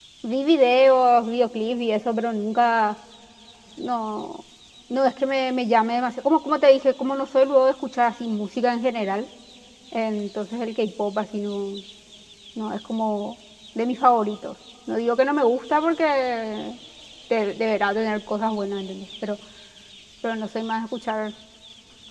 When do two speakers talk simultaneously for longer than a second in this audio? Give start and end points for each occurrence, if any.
none

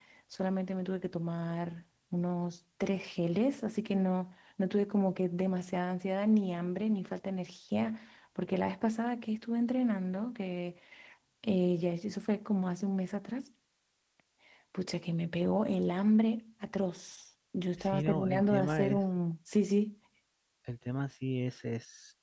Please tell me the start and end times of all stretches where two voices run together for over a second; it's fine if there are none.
17.8-19.0

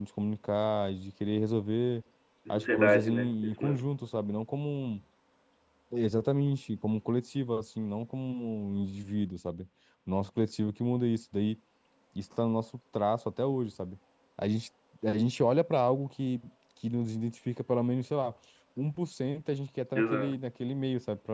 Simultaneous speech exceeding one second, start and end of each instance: 2.5-3.8

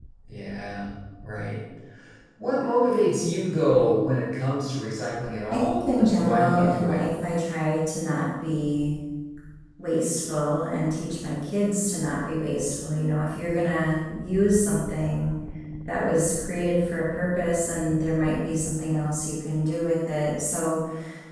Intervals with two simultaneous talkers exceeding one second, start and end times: 5.5-7.0

